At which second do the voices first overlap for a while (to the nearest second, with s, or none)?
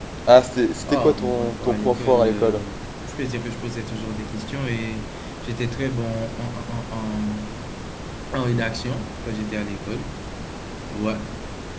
1 s